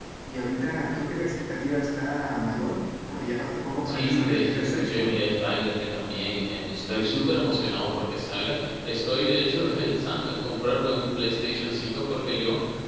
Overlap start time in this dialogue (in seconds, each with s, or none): 3.9 s